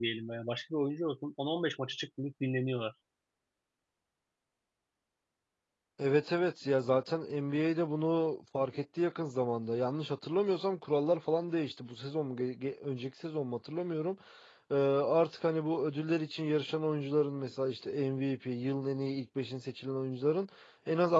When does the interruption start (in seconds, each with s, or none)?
none